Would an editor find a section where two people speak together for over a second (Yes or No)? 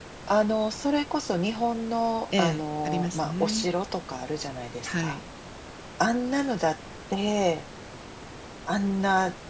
Yes